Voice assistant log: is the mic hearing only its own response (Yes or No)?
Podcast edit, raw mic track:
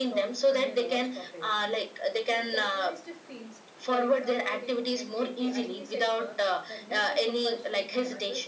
No